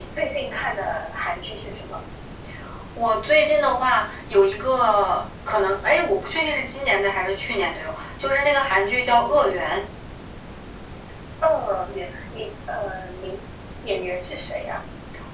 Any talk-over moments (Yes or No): No